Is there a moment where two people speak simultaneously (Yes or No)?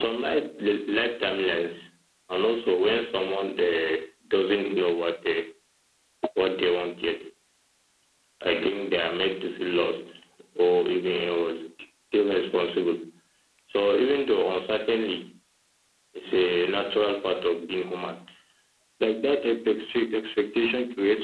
No